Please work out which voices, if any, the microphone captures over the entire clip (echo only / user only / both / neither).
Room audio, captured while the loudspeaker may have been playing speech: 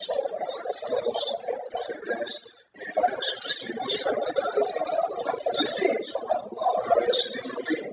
echo only